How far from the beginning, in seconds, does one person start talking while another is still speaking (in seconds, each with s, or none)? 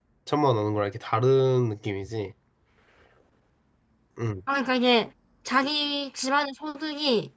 none